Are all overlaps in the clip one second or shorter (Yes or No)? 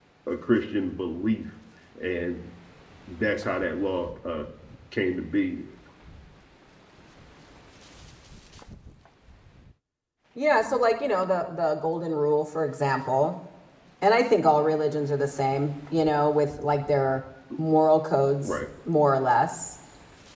Yes